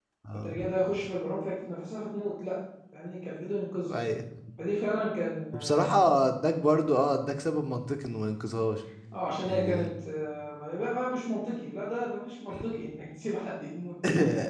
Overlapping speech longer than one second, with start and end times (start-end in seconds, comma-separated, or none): none